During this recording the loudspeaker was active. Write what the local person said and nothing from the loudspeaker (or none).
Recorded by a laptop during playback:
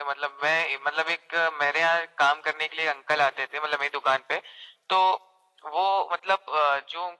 none